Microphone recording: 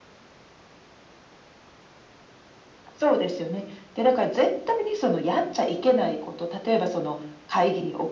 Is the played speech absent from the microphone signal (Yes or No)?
No